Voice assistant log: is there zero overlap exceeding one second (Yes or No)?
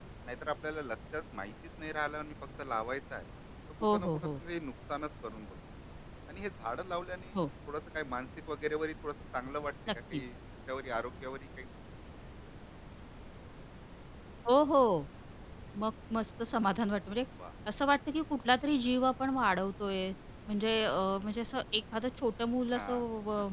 Yes